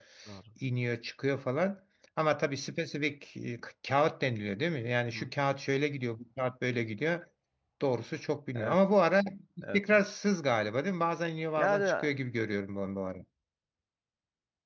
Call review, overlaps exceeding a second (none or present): none